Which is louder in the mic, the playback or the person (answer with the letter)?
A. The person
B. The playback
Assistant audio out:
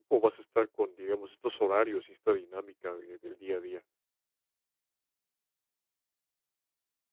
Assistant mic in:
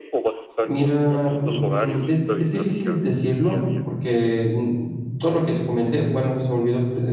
A